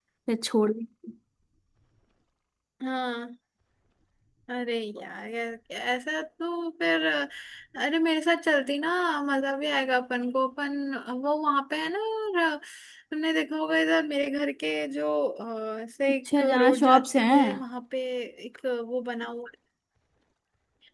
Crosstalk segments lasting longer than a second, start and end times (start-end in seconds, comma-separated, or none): 16.1-17.6